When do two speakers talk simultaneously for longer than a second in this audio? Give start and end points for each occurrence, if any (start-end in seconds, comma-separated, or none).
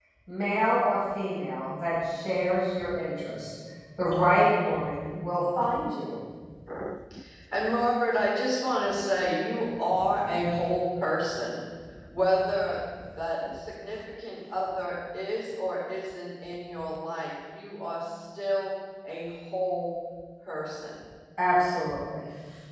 none